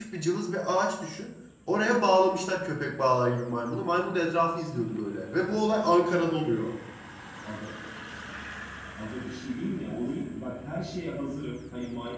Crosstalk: none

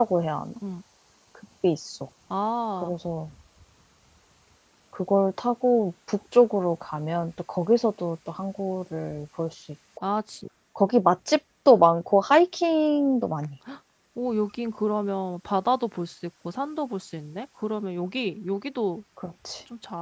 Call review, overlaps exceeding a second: none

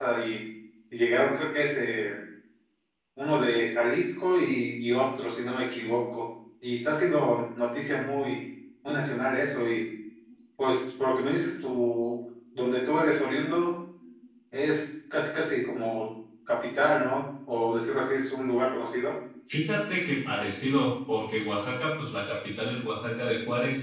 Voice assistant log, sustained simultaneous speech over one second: none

